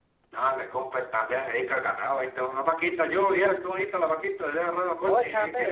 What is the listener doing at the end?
taking over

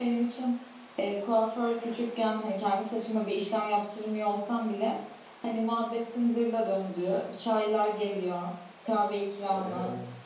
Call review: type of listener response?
listening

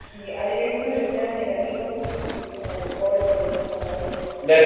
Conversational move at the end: taking over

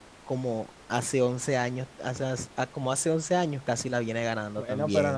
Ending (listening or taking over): taking over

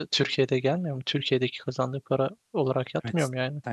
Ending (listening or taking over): taking over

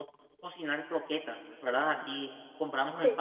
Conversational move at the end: listening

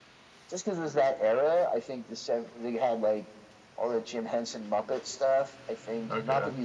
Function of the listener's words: listening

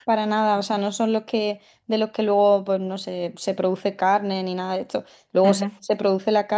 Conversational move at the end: listening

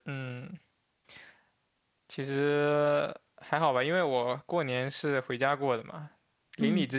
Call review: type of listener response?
listening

